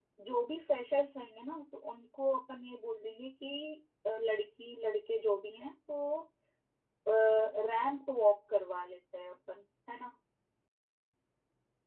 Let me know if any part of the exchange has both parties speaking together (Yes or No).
No